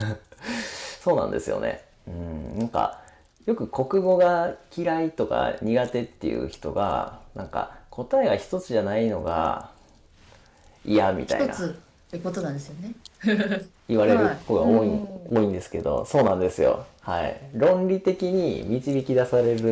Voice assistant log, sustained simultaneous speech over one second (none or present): present